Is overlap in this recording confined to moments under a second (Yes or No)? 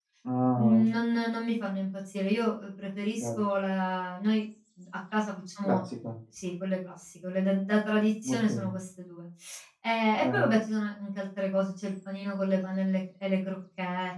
Yes